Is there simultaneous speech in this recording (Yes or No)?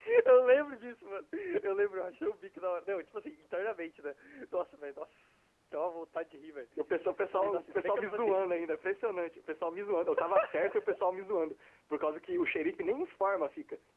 Yes